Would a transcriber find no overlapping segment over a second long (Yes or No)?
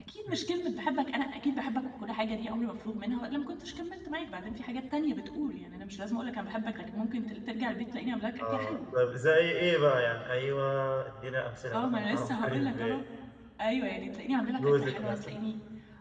No